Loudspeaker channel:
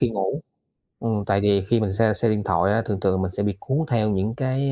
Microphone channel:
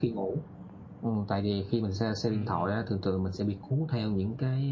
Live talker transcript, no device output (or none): Ừm, ừm.